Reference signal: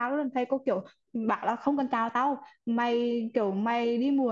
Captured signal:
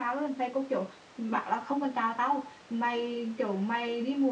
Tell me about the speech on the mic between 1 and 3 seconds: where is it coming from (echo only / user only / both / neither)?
echo only